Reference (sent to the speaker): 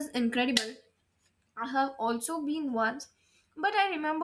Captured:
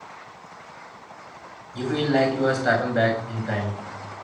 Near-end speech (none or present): present